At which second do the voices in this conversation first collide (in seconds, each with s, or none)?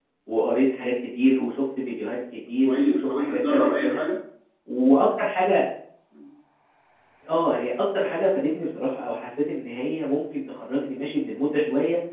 2.6 s